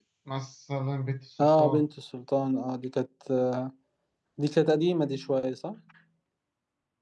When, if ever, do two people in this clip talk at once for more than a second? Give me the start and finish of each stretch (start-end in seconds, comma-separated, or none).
none